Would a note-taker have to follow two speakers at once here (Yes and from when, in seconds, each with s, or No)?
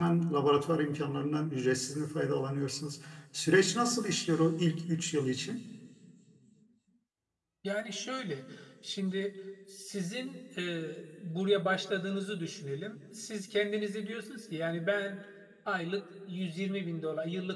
No